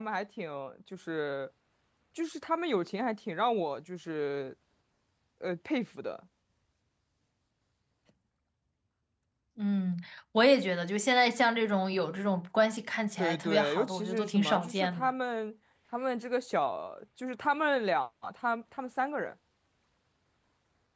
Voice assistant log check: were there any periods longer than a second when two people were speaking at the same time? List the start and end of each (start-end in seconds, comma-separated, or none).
13.2-15.1